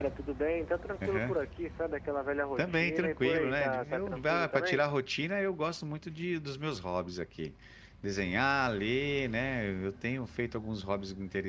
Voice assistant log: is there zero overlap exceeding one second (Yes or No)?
No